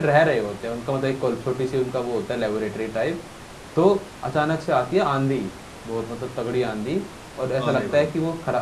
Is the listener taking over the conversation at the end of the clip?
No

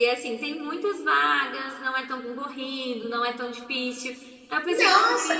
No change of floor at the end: No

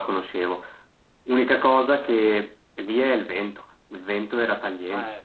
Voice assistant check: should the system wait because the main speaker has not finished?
Yes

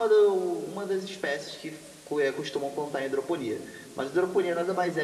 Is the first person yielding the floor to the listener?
No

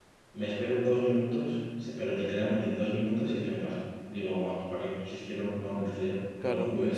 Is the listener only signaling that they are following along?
No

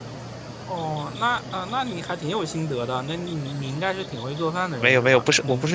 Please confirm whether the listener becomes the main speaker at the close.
Yes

